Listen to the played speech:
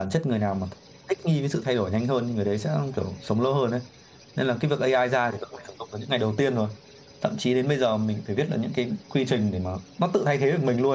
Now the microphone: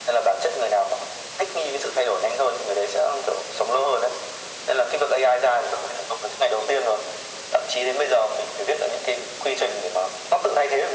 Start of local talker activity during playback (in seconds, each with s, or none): none